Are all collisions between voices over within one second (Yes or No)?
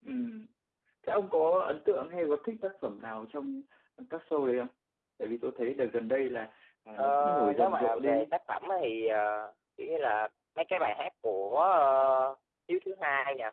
No